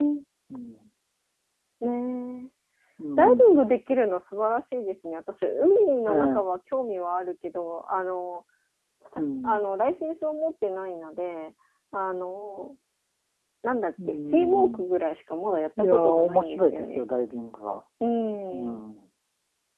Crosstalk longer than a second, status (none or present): present